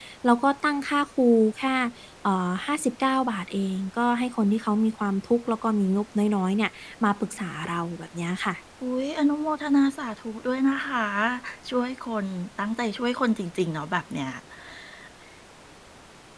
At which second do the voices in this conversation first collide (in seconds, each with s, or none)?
none